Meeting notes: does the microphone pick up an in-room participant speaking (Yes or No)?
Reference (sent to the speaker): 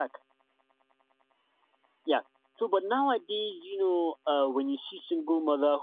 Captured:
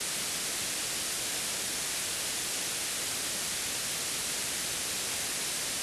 No